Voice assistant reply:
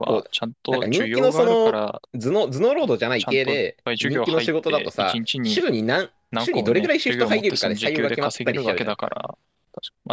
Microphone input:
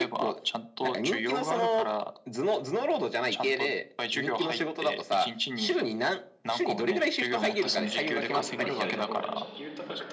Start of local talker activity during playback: 7 s

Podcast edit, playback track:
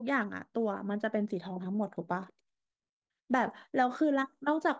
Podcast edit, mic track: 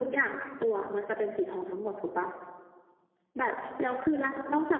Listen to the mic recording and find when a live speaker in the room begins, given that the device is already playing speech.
none

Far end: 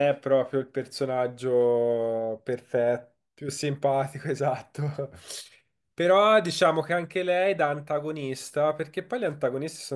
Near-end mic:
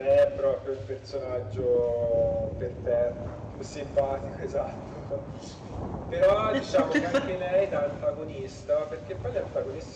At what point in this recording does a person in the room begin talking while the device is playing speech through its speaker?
7 s

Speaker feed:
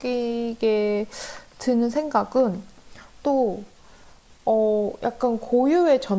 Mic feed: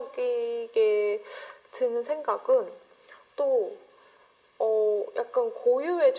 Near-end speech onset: none

